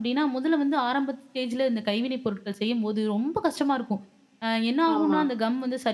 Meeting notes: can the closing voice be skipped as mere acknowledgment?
Yes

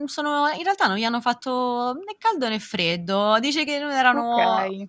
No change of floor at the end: Yes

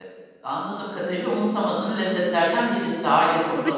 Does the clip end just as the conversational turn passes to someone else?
Yes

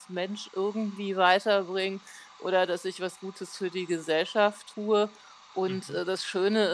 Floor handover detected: No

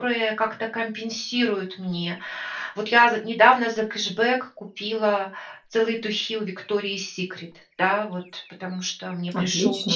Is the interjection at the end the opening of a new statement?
No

